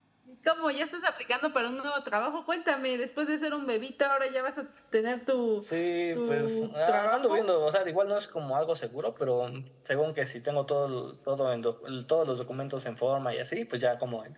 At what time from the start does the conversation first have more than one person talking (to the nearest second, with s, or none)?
6 s